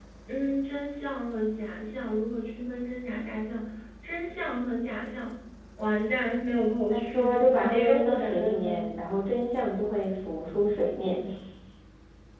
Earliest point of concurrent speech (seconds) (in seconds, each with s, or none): 6.9 s